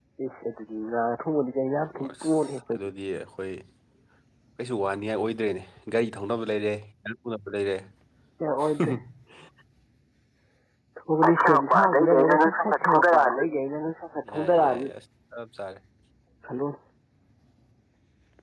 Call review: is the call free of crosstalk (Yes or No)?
No